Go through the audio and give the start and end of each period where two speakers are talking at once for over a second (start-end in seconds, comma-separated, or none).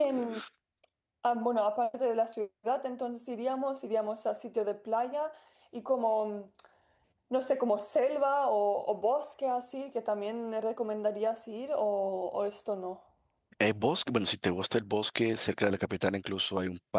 none